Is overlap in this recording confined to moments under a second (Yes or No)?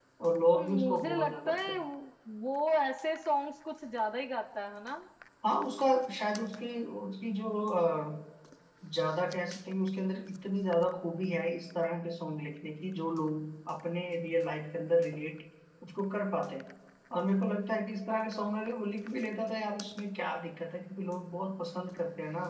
No